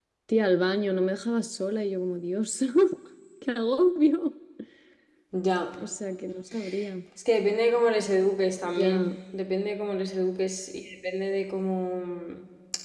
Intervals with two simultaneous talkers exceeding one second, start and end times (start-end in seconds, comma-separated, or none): none